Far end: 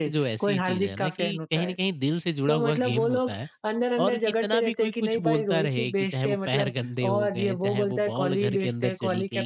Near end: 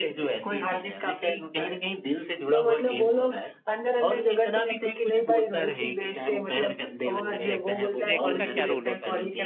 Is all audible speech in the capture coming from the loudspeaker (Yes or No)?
No